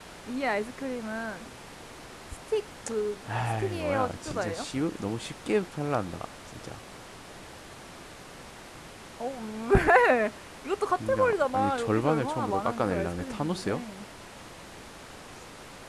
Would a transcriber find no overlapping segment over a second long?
No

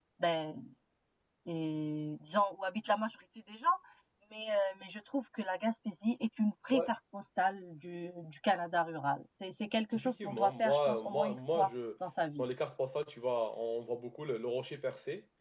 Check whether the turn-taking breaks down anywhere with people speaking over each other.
Yes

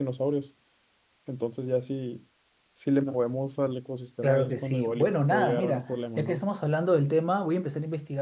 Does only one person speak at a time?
No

